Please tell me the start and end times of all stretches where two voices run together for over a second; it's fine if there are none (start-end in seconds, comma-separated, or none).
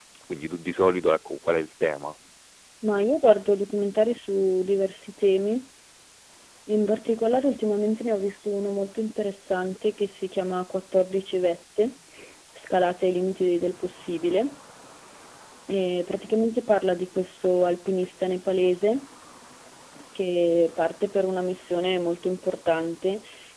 none